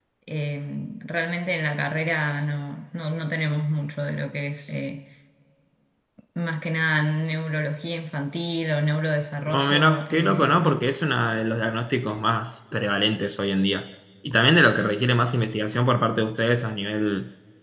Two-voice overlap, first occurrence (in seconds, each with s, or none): 9.5 s